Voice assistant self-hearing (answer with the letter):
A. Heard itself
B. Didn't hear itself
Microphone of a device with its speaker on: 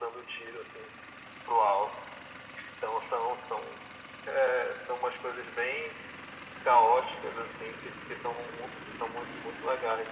A